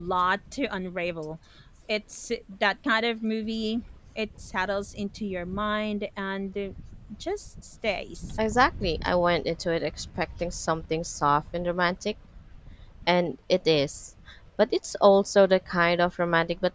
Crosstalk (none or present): none